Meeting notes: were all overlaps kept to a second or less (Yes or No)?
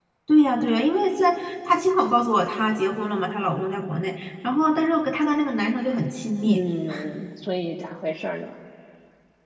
Yes